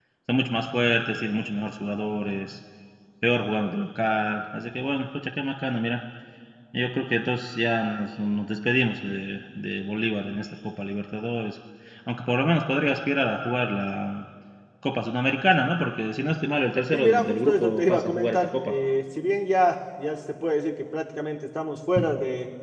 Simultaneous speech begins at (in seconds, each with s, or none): 16.9 s